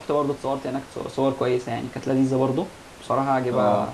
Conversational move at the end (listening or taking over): listening